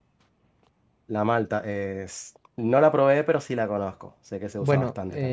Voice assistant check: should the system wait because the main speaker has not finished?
No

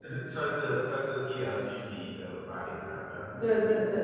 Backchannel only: No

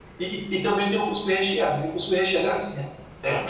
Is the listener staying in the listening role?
Yes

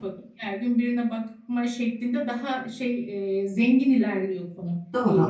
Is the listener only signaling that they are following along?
No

